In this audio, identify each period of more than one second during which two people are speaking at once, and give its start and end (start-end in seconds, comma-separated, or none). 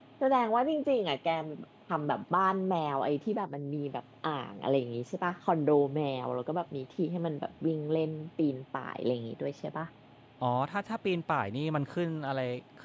none